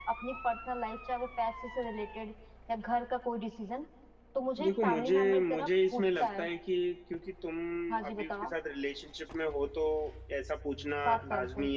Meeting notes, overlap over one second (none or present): present